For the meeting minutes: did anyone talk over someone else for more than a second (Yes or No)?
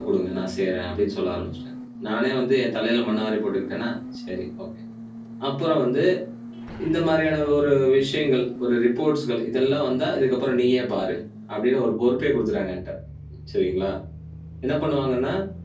No